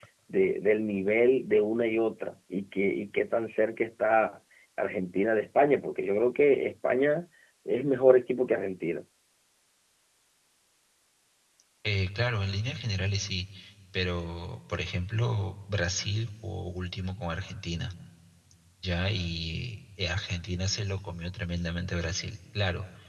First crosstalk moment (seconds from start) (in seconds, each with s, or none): none